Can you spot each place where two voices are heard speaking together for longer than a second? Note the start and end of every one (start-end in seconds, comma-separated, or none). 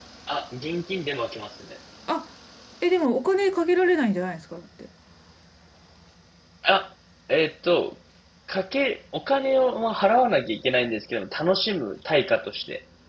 none